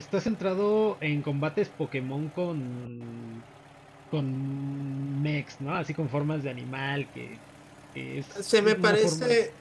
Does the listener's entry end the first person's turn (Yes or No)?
Yes